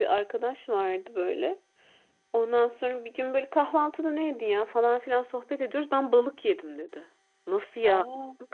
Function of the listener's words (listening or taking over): listening